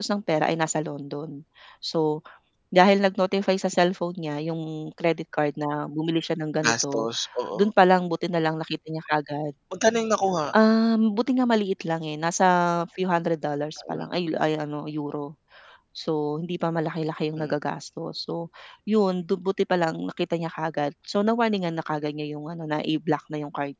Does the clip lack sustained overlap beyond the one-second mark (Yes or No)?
Yes